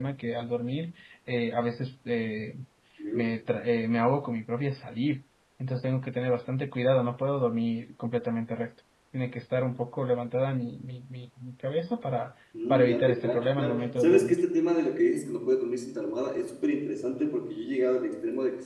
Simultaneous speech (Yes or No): Yes